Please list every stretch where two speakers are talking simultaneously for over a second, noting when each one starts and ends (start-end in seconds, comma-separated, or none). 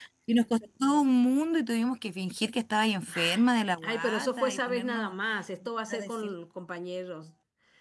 3.8-5.1